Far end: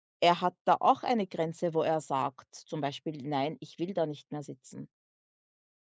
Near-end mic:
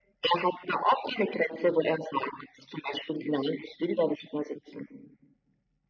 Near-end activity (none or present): none